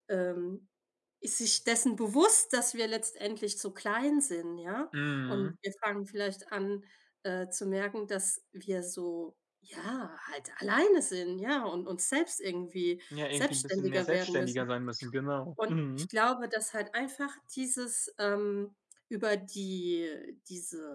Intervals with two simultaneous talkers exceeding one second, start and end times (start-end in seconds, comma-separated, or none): 13.3-14.7